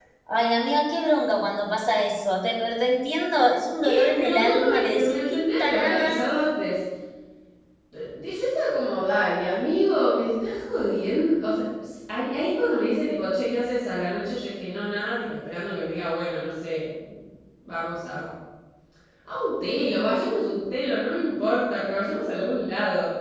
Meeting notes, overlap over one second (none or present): present